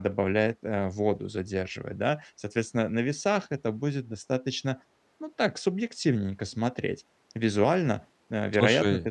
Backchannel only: Yes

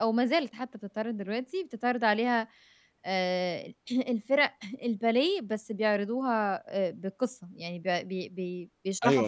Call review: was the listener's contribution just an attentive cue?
No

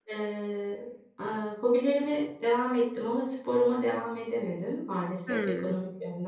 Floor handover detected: No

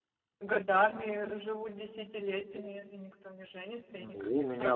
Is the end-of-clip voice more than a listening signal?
Yes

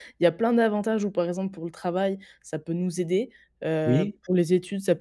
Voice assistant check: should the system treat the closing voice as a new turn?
No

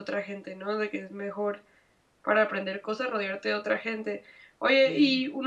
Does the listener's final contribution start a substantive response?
No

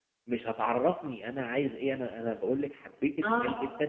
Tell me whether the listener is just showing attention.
Yes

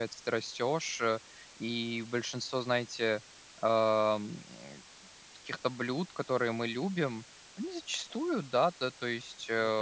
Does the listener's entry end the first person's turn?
No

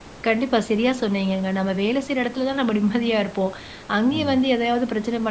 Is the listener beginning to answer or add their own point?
No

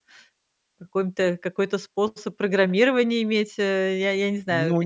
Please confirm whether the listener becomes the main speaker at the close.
Yes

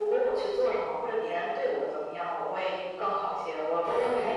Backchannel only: Yes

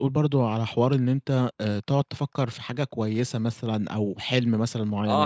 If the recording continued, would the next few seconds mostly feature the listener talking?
Yes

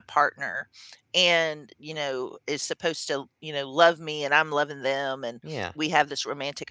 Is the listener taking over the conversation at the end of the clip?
No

